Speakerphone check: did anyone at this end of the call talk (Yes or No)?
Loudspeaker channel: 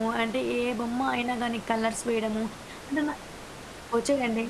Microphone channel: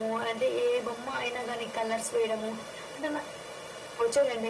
No